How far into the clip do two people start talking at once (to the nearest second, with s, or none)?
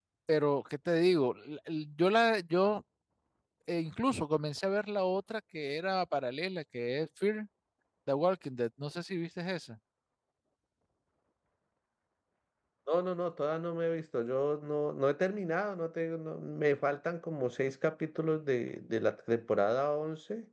none